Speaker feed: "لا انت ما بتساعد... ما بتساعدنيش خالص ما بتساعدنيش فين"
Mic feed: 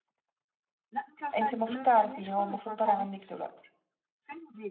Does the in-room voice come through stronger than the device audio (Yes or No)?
Yes